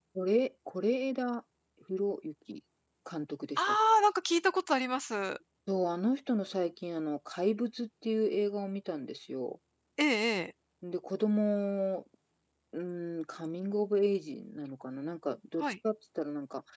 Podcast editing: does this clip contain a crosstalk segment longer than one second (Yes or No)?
No